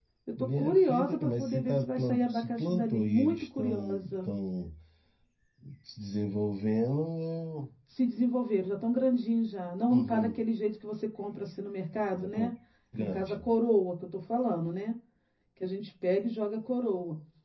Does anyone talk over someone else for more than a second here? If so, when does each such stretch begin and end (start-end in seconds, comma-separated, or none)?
0.6-4.3